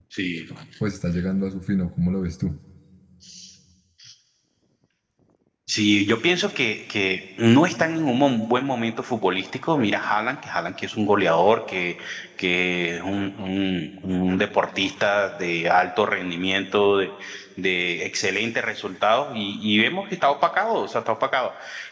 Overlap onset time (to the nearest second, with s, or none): none